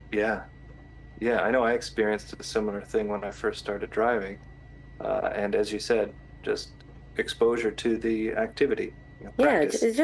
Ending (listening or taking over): taking over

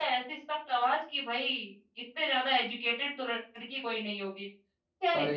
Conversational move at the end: listening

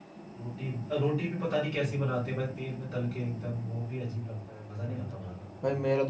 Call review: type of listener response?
taking over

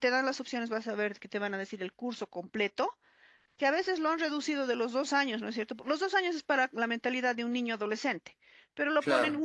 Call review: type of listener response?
listening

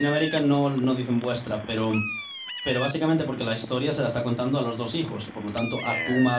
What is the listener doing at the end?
listening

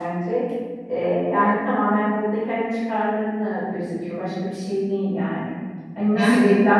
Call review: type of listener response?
listening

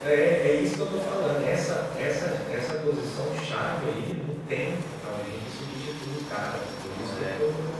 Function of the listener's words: listening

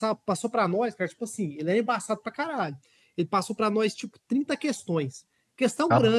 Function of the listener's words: listening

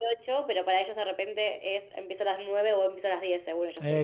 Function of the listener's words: taking over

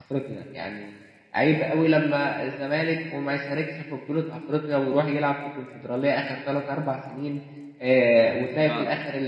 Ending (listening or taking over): listening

